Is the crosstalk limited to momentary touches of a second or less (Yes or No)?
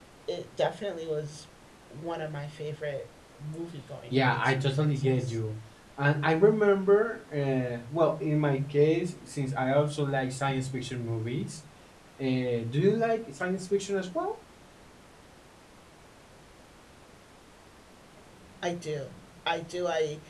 No